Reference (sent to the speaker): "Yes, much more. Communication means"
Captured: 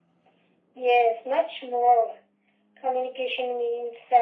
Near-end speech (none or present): none